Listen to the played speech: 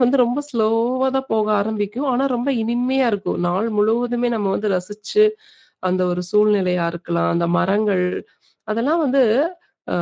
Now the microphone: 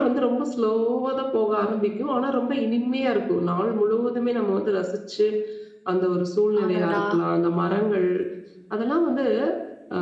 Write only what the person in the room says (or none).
அடடா!